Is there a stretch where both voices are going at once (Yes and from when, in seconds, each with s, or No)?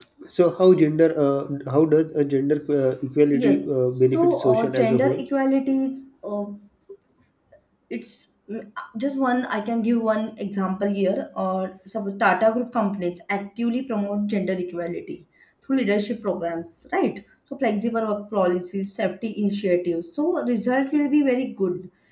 Yes, from 3.3 s